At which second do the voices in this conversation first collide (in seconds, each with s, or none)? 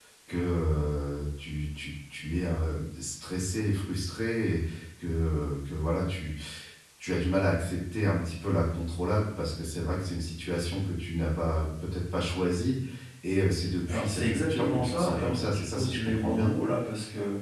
13.9 s